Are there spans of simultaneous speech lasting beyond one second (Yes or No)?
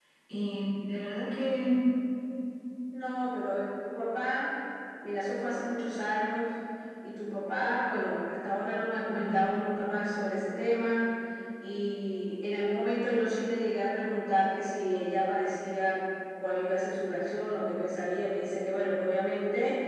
No